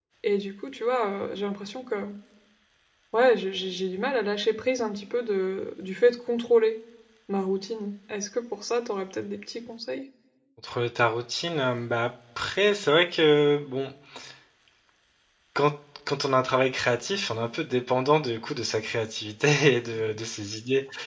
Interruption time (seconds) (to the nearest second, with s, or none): none